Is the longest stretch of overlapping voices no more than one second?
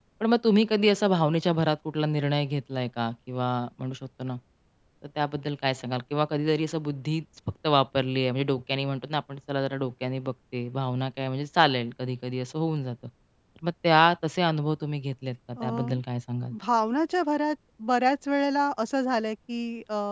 Yes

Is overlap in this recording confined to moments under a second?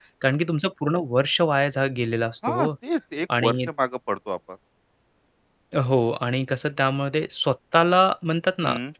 Yes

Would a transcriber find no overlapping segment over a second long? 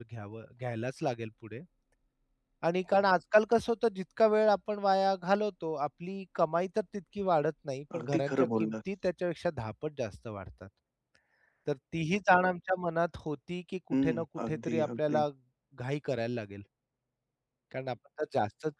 No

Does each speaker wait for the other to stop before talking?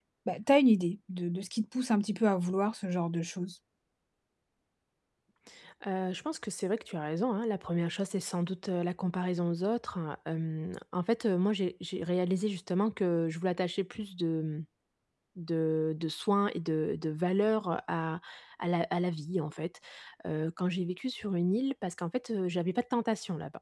Yes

